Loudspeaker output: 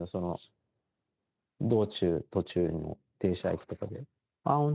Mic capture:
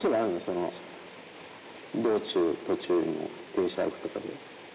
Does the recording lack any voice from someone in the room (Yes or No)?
Yes